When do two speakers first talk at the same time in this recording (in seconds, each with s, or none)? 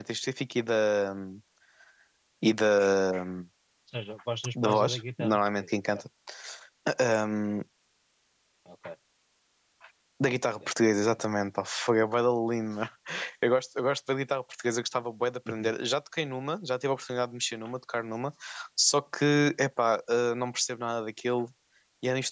4.6 s